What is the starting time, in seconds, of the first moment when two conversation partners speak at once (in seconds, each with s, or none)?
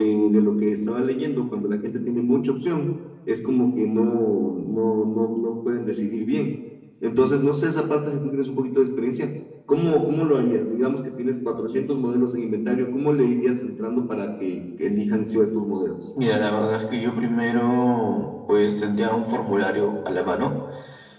none